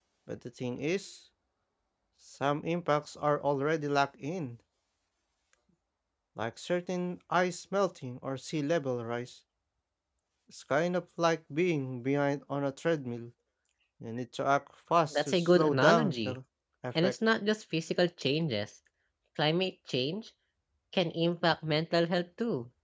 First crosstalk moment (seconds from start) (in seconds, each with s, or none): 15.1 s